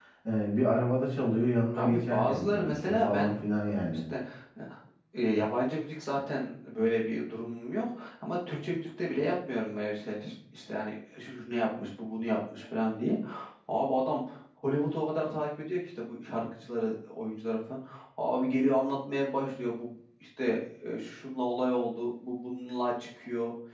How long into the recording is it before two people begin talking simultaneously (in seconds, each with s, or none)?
1.7 s